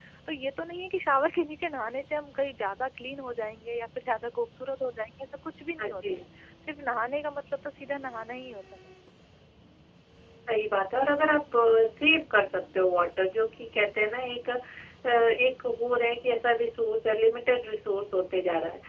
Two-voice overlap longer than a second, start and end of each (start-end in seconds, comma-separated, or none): none